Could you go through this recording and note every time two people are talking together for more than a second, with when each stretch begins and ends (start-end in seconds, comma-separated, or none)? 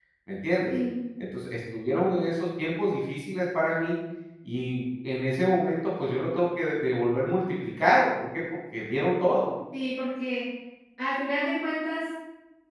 none